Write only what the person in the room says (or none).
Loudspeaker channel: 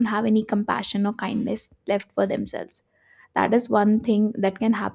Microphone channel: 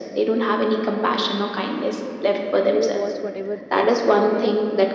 and they will watch whatever is uh, there